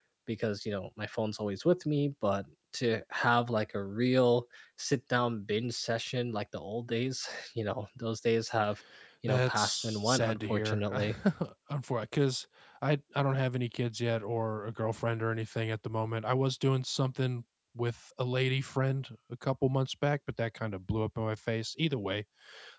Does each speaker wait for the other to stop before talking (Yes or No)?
No